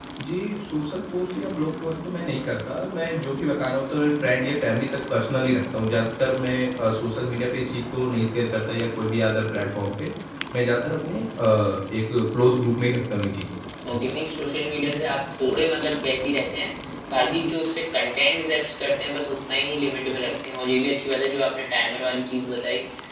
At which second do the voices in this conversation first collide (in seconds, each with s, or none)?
none